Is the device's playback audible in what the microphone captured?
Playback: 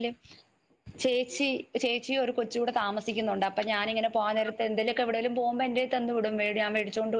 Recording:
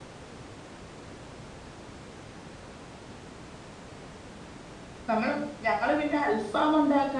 No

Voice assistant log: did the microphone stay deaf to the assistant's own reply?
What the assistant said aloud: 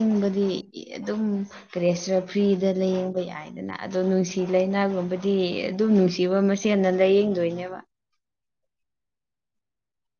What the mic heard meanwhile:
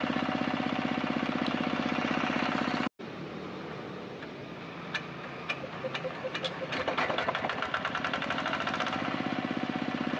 Yes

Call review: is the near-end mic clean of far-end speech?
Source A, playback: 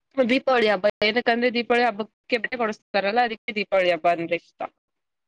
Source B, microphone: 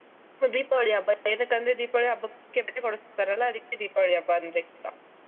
No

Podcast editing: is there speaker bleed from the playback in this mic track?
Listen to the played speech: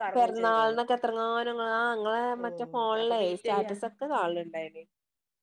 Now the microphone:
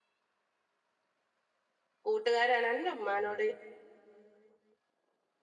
No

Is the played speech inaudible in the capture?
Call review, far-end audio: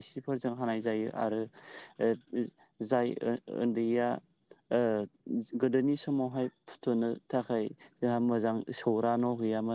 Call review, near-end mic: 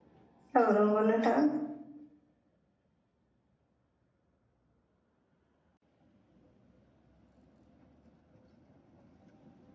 Yes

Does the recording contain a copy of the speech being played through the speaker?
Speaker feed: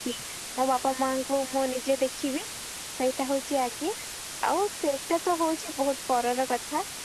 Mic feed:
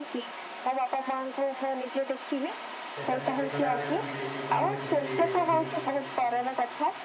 Yes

